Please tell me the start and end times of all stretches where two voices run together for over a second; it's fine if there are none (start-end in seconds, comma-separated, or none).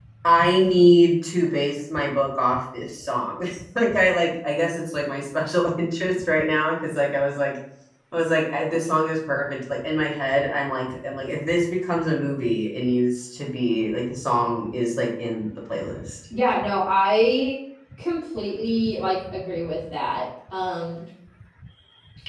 none